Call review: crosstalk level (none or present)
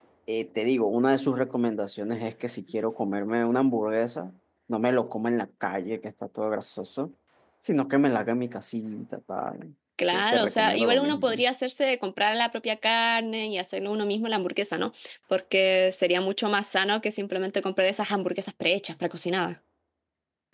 present